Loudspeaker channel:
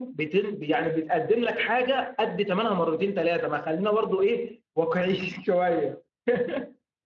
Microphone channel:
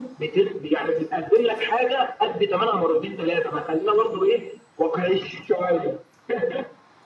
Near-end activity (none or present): none